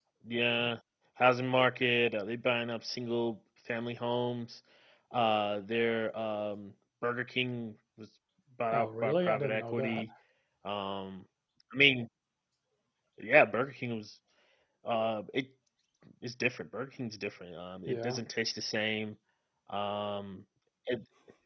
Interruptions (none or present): present